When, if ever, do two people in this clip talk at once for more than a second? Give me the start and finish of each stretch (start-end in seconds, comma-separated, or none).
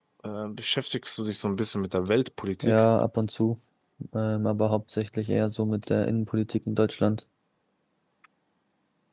none